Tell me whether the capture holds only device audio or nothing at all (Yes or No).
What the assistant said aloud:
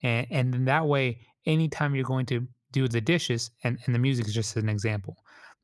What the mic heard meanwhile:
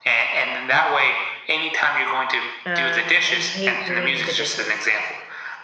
No